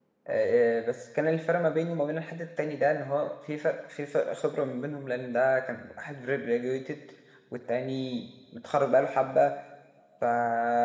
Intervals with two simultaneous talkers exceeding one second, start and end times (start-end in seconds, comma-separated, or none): none